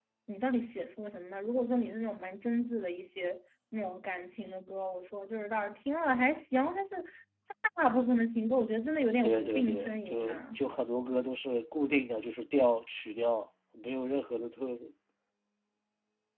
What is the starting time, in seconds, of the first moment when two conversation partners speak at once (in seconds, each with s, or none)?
9.2 s